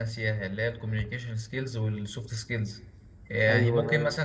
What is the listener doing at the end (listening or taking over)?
listening